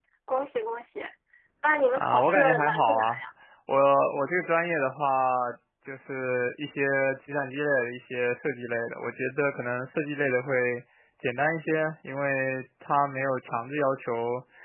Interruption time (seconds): 2.0 s

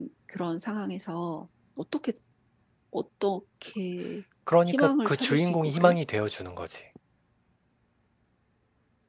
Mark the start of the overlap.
4.7 s

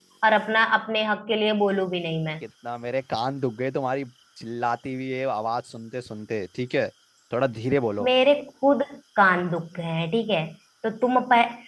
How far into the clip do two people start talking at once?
none

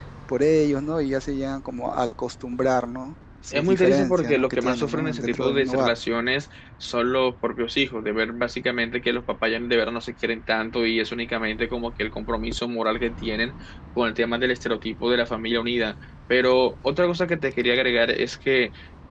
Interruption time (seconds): 3.5 s

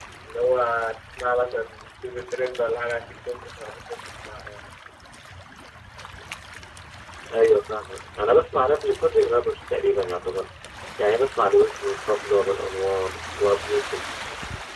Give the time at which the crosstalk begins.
none

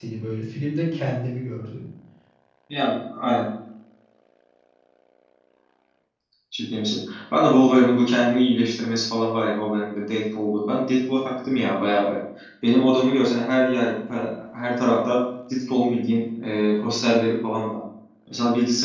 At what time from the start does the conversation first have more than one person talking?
none

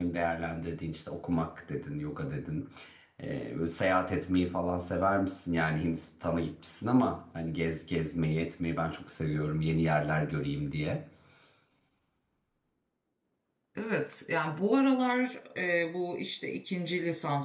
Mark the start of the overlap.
none

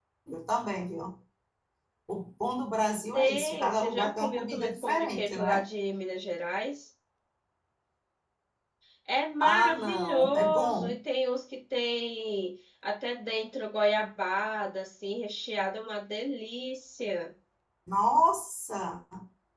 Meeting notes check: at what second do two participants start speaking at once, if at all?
3.1 s

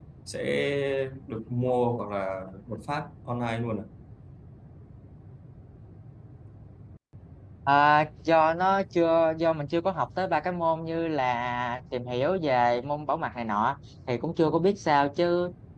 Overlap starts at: none

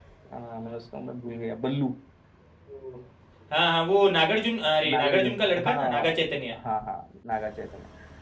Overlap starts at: 4.8 s

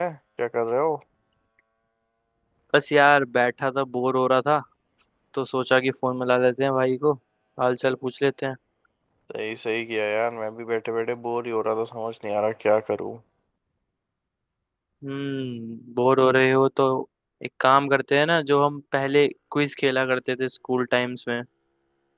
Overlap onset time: none

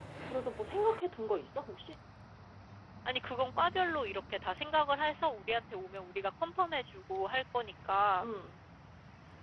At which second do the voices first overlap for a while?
none

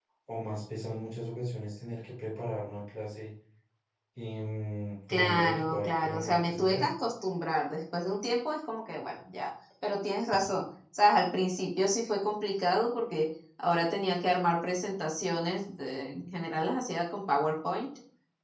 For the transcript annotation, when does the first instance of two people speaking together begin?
5.1 s

